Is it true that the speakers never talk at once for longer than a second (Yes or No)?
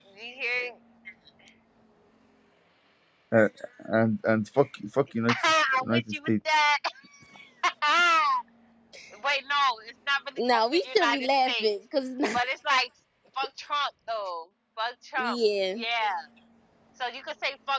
No